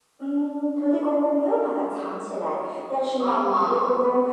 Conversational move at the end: listening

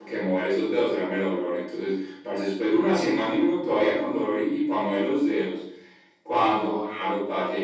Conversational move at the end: listening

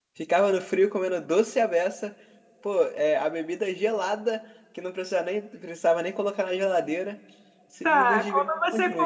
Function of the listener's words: taking over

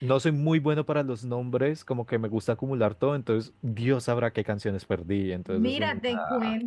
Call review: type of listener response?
taking over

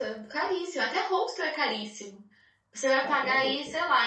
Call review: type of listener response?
listening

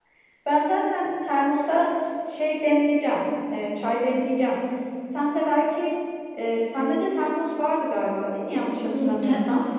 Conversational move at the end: taking over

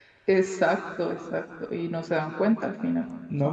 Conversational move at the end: taking over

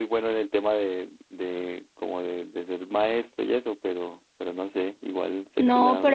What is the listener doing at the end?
taking over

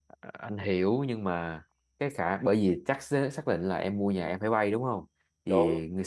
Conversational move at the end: listening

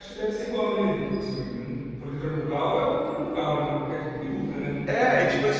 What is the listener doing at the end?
taking over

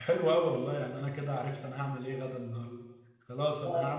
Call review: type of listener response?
listening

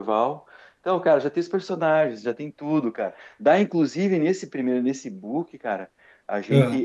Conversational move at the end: listening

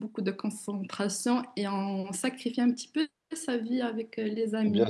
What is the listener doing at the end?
taking over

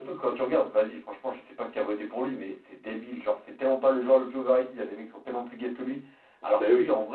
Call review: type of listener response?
listening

